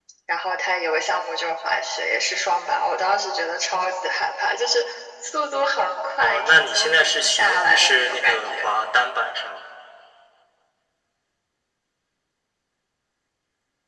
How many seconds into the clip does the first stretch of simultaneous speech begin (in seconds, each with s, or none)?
6.2 s